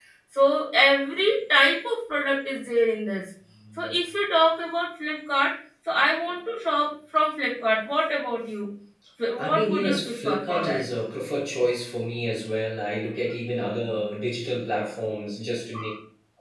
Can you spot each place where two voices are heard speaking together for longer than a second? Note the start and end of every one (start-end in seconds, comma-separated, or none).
9.4-10.8